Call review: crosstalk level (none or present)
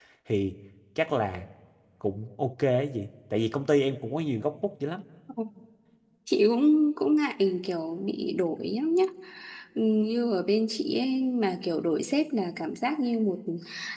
none